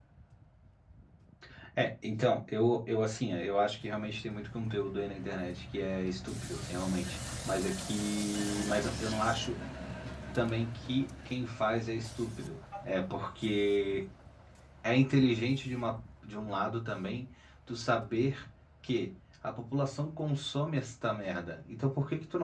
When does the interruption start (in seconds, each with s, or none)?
none